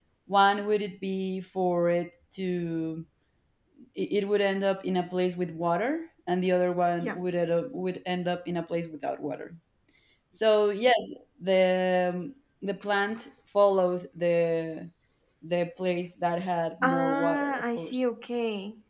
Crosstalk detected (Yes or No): Yes